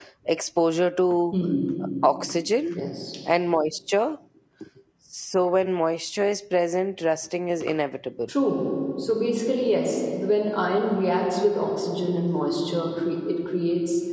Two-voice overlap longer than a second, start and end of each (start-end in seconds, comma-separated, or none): none